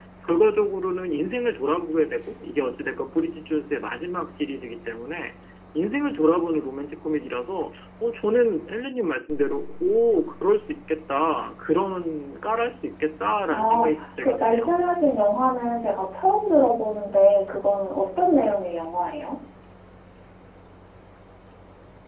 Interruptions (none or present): present